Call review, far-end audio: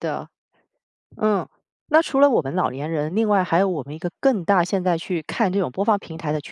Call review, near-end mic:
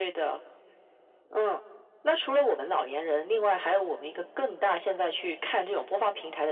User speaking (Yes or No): No